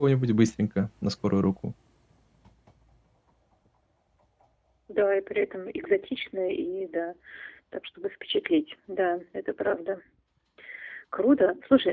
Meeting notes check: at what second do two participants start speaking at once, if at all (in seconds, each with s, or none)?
none